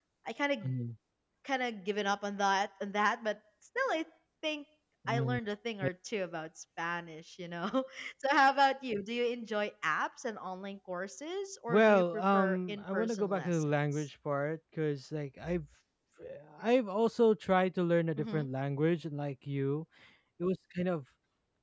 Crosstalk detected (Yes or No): Yes